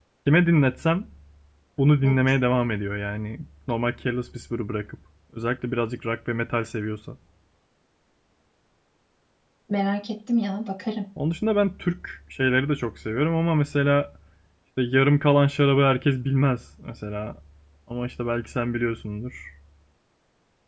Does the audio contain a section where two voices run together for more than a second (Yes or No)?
No